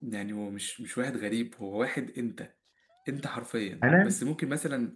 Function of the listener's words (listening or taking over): listening